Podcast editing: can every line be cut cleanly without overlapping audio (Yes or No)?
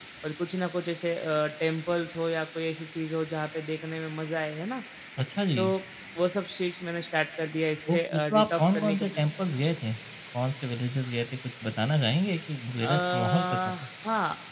No